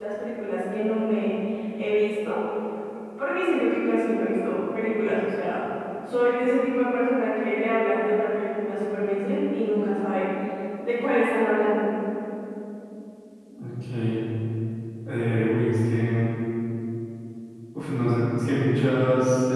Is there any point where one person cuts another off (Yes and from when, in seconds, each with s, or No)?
No